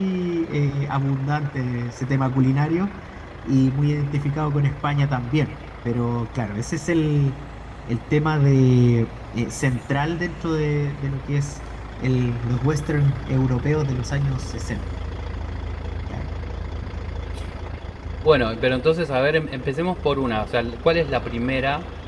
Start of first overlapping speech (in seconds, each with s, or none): none